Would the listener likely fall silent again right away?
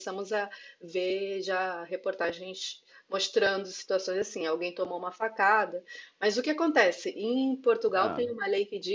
Yes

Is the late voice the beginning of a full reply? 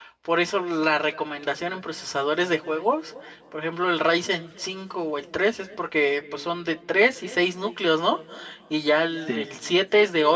No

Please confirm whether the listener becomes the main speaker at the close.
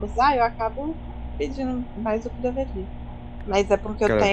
No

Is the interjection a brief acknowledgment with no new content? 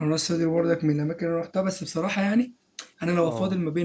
Yes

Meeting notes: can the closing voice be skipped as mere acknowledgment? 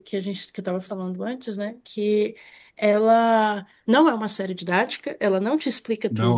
Yes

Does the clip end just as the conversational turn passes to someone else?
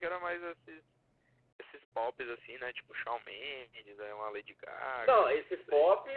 Yes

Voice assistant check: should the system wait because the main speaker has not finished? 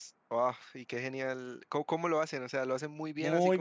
No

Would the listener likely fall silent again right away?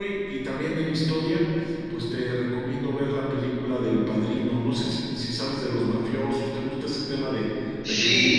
No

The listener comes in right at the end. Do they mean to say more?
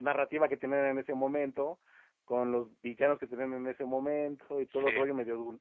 No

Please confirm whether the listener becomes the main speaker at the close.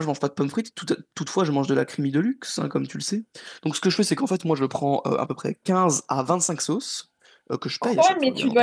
Yes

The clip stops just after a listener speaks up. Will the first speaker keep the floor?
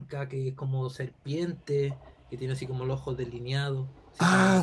No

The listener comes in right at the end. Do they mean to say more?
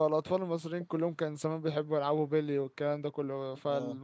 No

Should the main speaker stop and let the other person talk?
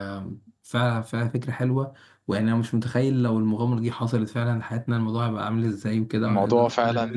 No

